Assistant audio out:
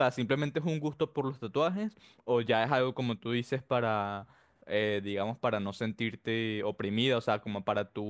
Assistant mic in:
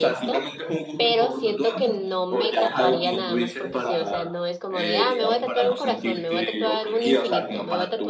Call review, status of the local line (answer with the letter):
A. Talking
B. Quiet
A